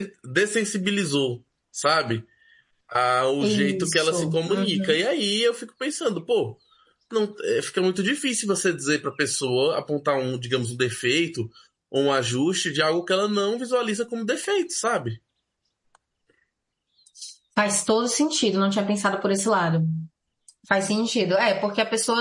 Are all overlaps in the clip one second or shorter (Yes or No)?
No